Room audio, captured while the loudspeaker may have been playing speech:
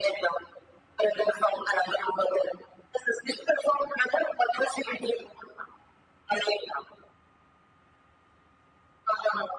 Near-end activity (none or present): none